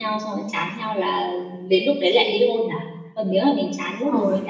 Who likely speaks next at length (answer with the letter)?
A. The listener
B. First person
B